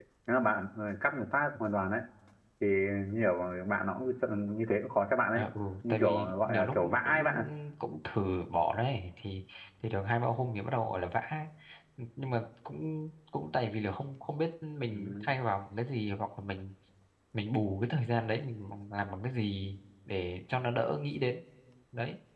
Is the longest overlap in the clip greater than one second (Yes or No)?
Yes